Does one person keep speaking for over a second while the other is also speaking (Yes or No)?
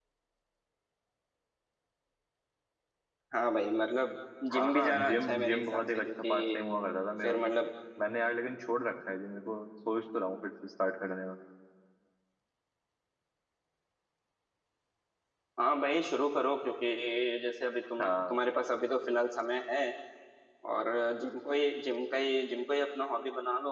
Yes